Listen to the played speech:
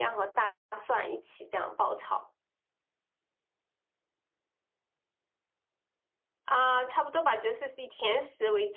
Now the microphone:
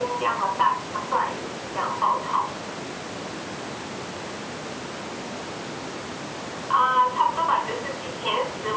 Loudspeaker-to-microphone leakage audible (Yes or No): Yes